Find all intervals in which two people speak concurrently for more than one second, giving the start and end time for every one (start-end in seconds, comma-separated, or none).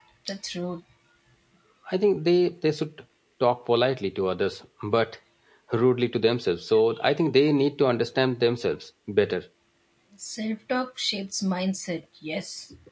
none